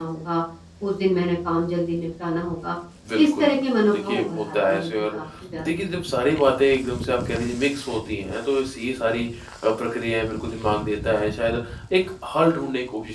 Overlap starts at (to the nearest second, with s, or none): 3 s